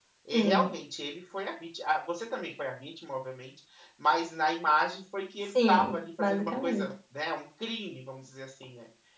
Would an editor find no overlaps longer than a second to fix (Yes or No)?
No